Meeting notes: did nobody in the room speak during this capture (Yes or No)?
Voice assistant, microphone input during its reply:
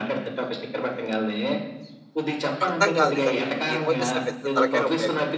No